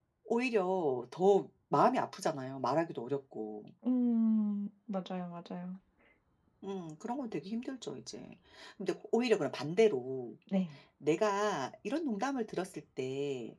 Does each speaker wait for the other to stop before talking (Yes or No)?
Yes